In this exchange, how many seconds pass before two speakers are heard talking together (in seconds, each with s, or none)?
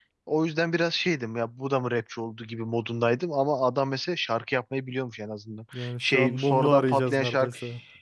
5.7 s